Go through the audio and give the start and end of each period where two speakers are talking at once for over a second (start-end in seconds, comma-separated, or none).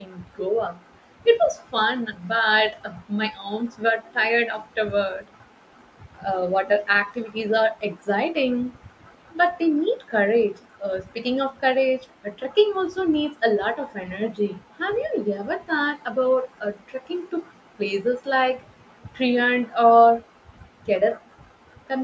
none